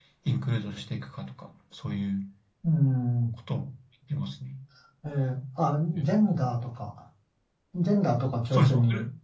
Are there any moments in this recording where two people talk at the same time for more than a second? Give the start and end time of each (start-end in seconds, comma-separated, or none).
none